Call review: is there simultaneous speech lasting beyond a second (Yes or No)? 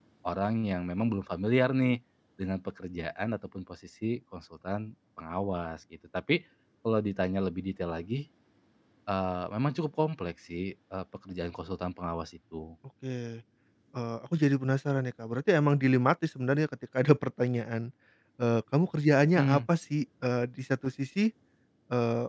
No